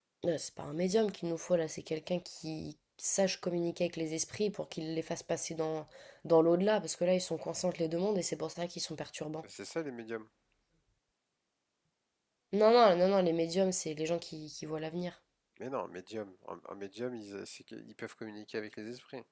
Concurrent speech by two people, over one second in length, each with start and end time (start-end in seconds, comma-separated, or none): none